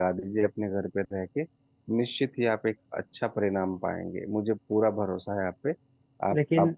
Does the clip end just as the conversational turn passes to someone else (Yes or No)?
No